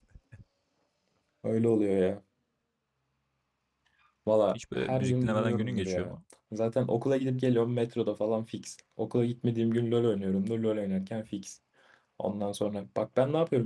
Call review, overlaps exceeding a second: present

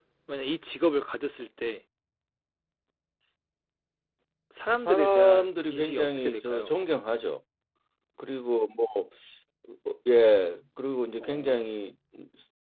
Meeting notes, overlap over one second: present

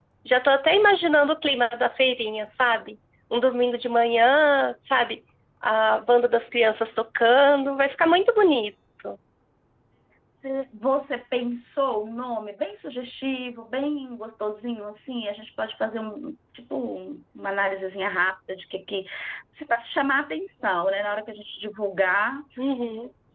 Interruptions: none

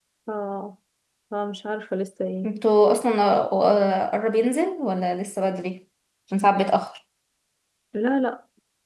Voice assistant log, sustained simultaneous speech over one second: none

